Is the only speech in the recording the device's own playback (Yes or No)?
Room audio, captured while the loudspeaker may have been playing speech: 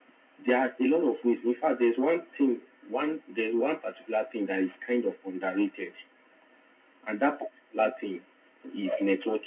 Yes